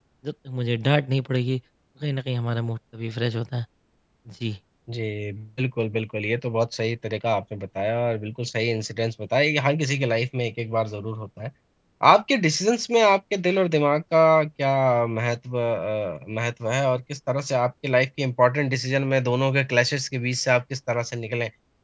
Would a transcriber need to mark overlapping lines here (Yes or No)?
No